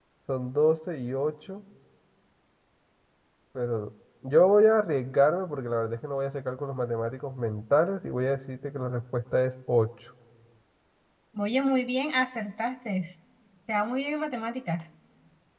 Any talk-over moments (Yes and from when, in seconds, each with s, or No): No